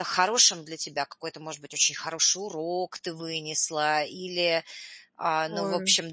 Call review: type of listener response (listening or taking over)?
listening